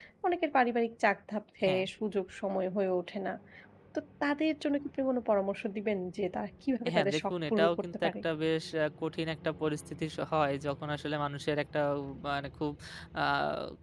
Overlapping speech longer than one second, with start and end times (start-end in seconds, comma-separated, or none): 6.9-8.1